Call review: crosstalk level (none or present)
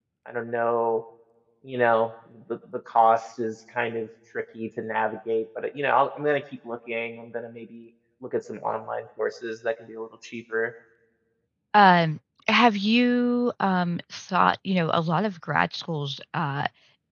none